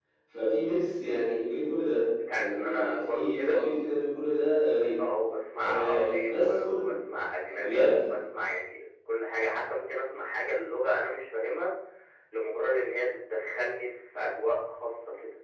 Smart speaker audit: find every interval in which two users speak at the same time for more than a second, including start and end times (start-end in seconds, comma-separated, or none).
2.3-3.6, 5.6-6.8